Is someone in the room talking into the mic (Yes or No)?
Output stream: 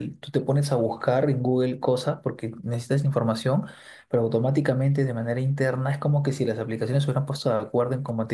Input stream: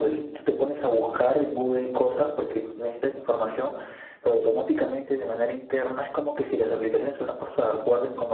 No